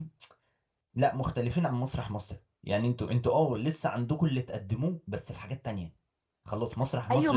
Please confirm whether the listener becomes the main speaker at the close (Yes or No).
Yes